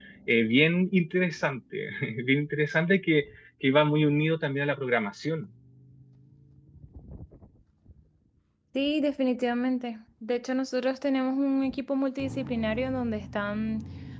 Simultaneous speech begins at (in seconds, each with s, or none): none